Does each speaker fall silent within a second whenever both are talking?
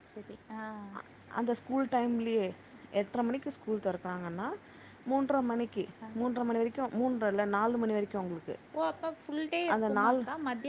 Yes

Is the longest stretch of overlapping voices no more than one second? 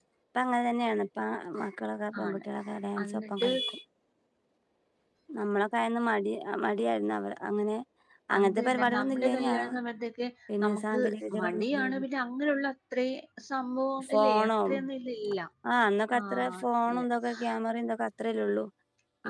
No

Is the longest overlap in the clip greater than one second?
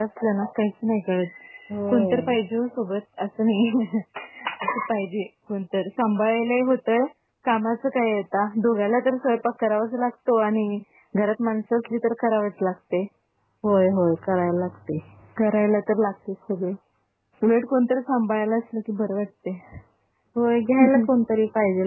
No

